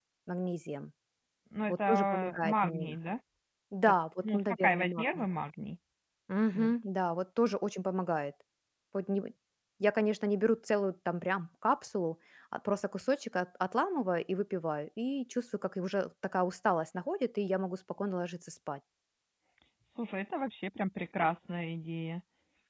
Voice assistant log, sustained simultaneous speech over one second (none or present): present